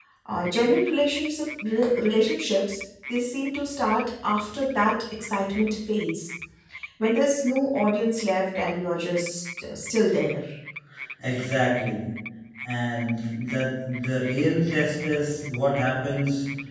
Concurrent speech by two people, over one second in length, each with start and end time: none

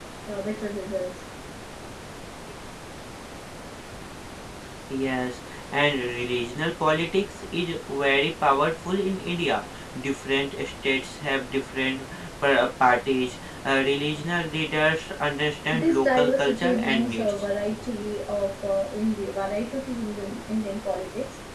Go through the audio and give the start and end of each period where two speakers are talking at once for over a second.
15.7-17.3

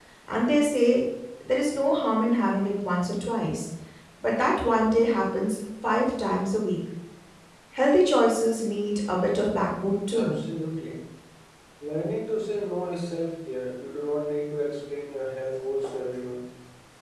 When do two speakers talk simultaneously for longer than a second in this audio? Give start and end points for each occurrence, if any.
none

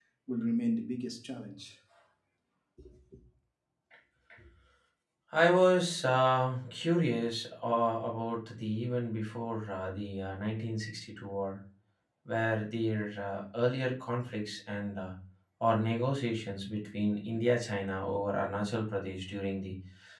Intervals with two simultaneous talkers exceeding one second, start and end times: none

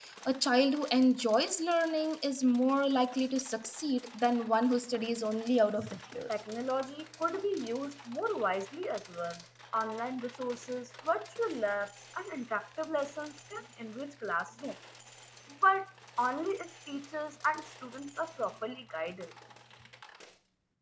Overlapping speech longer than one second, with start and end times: none

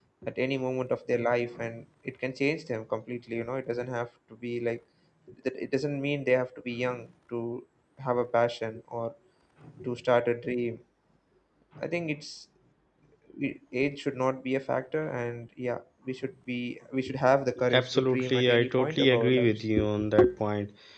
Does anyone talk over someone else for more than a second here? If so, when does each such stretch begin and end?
17.7-19.6

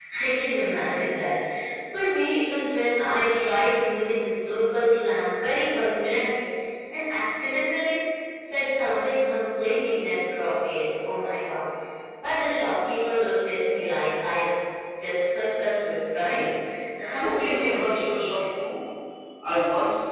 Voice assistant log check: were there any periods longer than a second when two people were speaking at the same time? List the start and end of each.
17.1-18.4

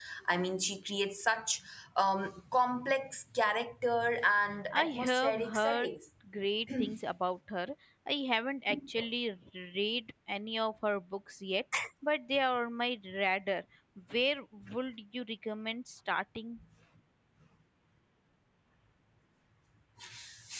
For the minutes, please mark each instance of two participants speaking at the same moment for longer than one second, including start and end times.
4.7-5.9

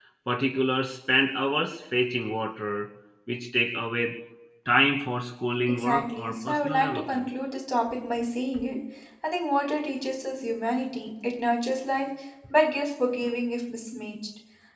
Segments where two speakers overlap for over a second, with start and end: 5.7-7.3

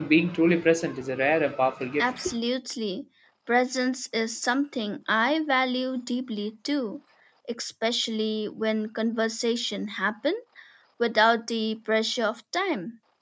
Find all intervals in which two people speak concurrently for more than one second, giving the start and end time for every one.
none

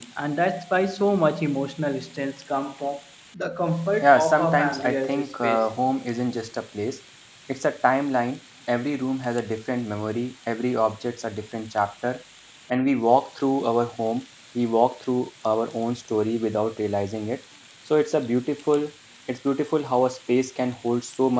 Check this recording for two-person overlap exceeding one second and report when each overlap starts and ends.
4.0-5.6

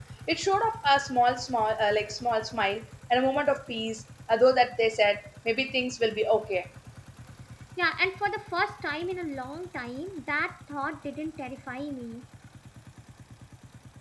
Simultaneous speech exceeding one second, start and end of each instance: none

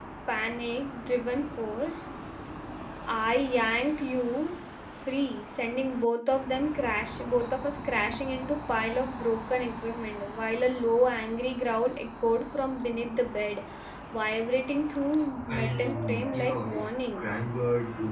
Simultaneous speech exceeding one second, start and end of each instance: 15.6-17.3

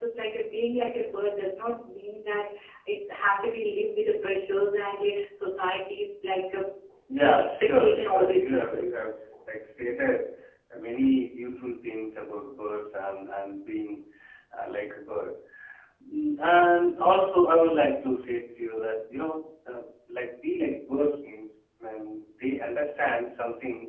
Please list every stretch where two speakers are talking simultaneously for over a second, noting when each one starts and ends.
7.3-8.9

